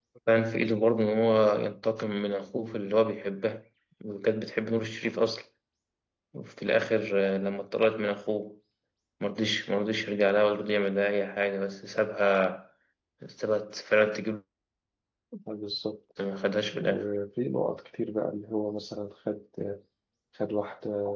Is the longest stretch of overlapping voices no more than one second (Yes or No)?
Yes